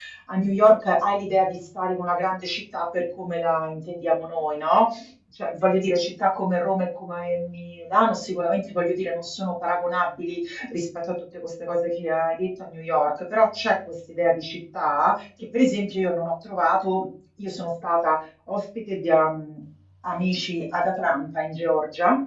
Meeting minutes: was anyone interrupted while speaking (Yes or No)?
No